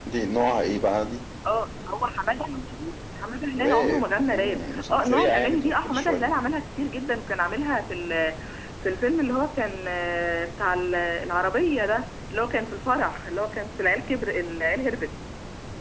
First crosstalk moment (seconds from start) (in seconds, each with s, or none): 3.6 s